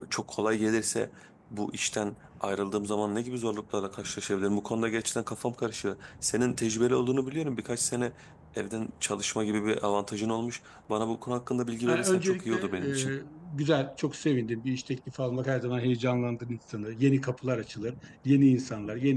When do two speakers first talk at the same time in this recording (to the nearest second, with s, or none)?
12 s